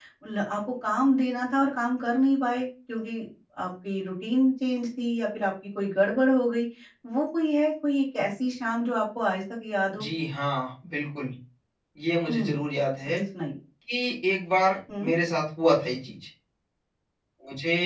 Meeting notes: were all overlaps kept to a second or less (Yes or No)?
Yes